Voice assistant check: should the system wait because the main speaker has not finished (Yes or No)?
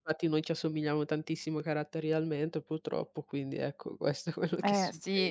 No